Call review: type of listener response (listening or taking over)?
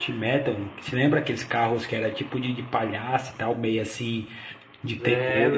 taking over